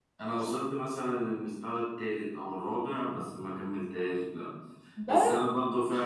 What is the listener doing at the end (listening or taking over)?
listening